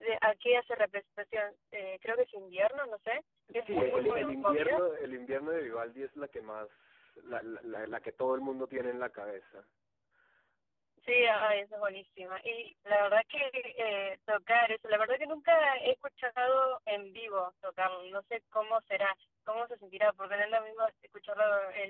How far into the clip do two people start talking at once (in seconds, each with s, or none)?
3.5 s